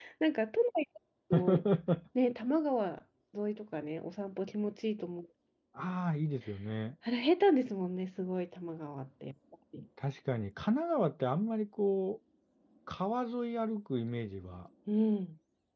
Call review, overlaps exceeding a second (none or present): none